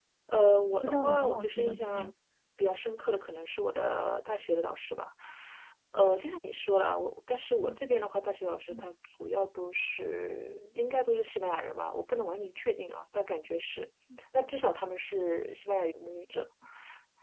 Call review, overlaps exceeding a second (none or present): present